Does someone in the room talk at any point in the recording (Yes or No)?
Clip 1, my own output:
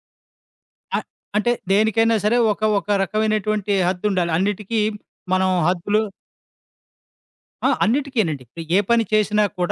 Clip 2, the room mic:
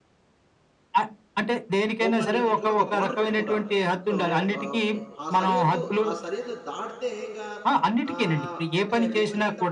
Yes